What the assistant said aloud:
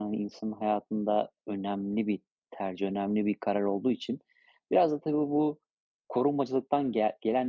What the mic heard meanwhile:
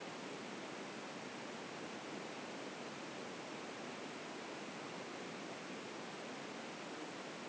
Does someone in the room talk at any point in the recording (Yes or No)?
No